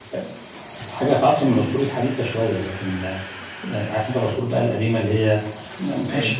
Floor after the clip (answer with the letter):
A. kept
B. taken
A